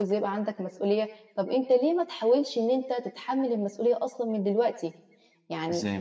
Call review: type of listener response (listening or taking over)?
listening